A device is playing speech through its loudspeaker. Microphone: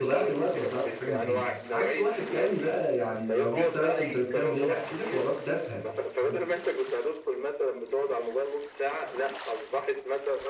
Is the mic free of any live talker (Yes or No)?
No